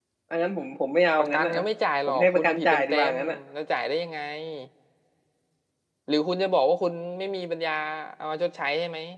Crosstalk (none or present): present